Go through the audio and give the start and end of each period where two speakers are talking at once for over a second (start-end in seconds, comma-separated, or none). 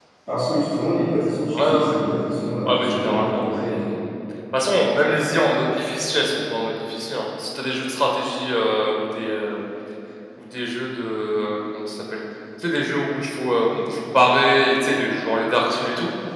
2.7-3.9